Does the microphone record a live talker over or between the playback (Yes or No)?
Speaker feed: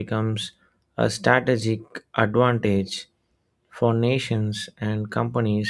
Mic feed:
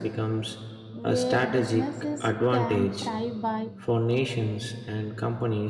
Yes